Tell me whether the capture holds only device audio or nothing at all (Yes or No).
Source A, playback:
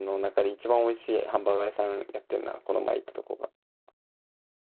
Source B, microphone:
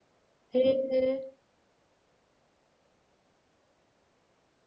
No